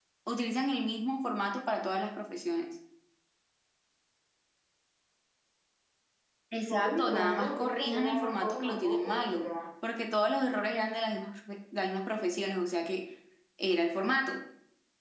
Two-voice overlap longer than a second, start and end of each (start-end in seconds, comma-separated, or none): 6.6-9.4